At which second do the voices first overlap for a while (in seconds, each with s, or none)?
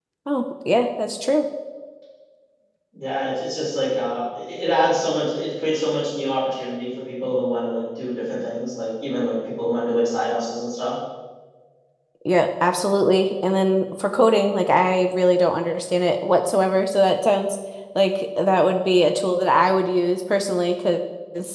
none